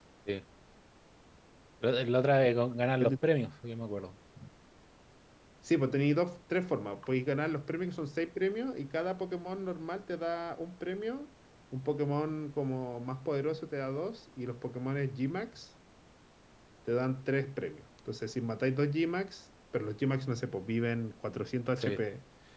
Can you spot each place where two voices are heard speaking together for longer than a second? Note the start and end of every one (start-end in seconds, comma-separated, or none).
none